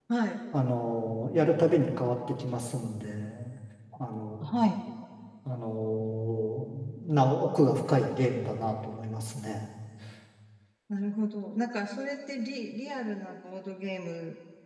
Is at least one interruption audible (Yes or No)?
No